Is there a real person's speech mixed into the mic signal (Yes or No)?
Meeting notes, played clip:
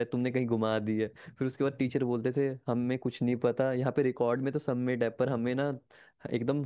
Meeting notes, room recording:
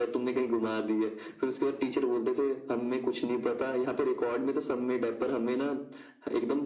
No